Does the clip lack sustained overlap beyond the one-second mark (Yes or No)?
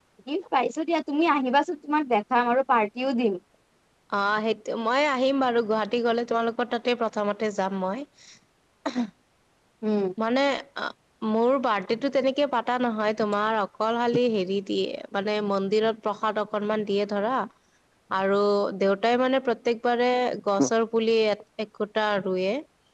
Yes